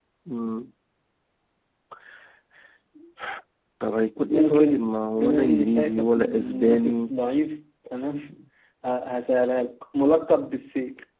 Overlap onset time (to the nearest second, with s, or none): 4 s